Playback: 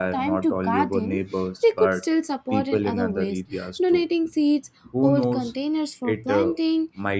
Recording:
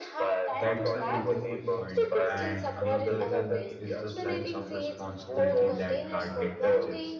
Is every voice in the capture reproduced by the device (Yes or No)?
No